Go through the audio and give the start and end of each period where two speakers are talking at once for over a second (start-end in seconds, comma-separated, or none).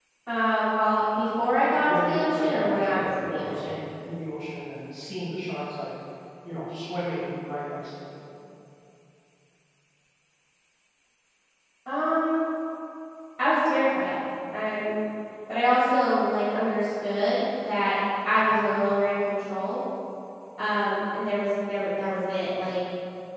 1.8-3.7